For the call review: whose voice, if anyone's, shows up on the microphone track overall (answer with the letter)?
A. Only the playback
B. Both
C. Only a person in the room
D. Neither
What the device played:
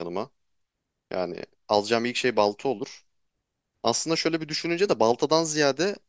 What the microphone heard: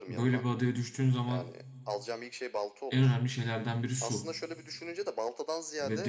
B